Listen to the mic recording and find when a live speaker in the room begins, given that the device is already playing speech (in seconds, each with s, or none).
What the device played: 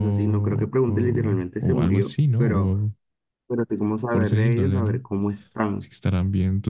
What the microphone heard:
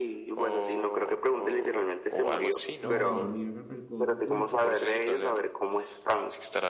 2.8 s